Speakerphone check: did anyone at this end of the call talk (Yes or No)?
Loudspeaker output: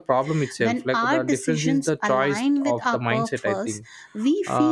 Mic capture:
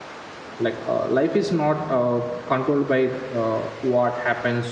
Yes